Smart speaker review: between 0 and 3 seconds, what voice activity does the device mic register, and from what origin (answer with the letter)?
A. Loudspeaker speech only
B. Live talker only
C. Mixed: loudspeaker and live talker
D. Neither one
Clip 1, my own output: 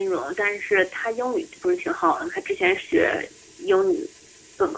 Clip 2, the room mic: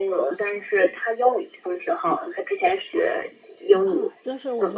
A